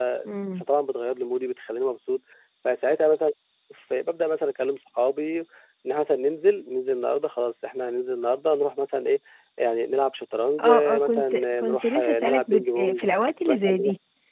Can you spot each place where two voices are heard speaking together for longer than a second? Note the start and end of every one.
10.6-13.0

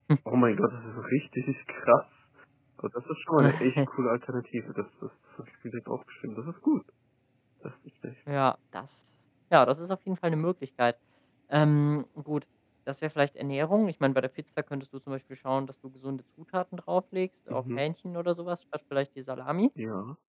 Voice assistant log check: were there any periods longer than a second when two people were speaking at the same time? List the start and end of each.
none

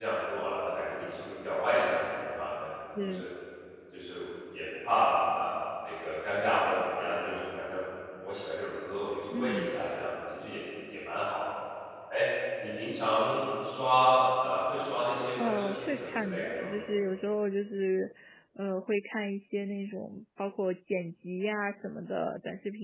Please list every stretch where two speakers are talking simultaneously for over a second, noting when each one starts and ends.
15.4-16.7

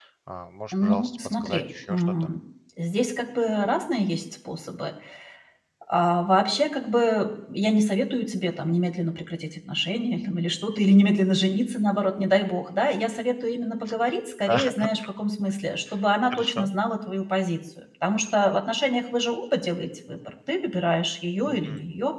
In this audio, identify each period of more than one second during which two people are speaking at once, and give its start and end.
0.7-2.3

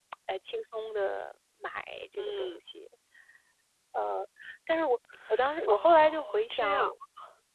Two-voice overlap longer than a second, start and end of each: 5.7-6.9

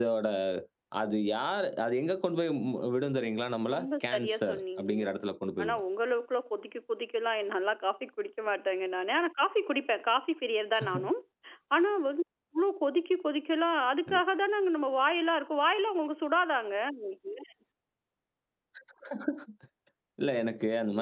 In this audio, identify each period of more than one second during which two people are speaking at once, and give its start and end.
3.7-5.0

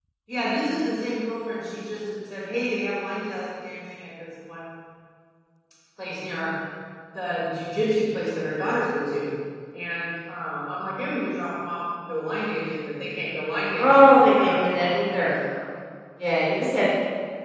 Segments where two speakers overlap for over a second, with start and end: 13.8-15.3

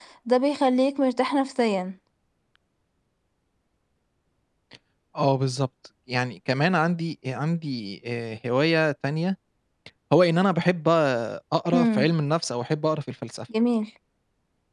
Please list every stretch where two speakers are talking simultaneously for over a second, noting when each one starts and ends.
none

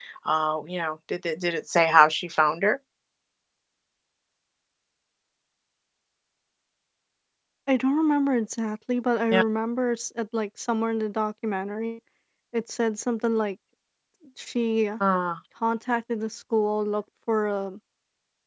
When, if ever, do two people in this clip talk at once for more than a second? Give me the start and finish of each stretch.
none

